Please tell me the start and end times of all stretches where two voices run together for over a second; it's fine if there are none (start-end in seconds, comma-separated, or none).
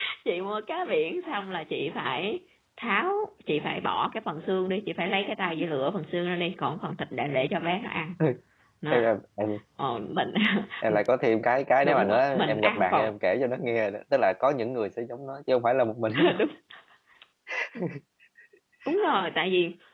11.8-13.1